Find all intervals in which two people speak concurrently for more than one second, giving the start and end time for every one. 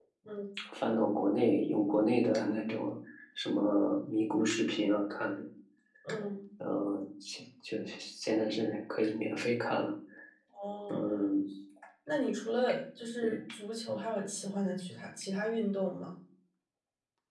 none

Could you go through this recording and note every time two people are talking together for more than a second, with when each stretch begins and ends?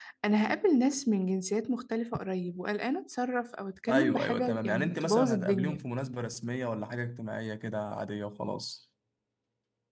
3.9-5.8

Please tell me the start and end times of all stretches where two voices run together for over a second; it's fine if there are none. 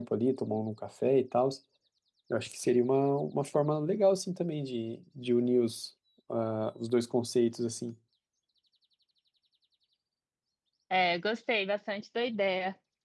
none

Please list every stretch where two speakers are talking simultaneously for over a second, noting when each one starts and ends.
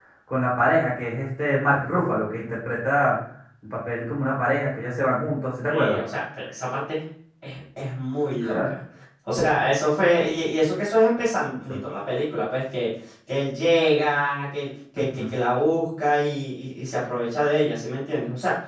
none

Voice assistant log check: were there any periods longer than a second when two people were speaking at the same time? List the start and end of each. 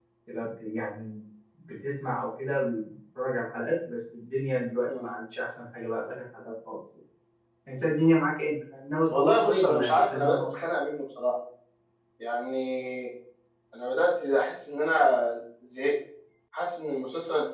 9.1-10.4

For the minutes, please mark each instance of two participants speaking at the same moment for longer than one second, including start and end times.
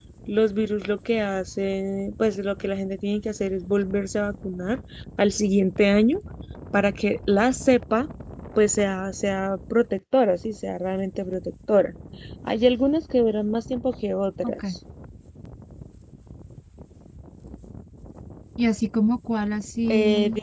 none

